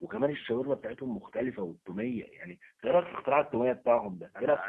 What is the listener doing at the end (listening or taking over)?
taking over